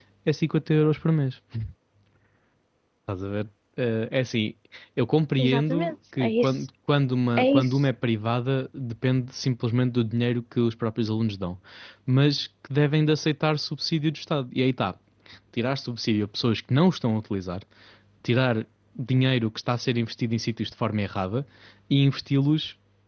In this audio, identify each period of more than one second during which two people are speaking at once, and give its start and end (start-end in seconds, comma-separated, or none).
5.4-6.7